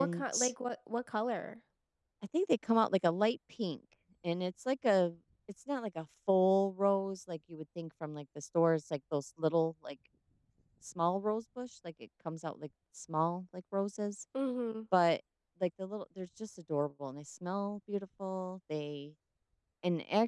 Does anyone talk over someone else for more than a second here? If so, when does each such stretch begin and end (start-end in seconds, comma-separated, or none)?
none